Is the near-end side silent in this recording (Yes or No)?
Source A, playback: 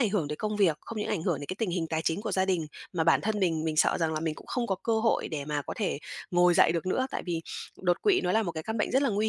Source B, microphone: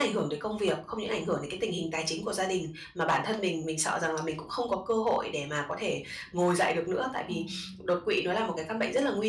No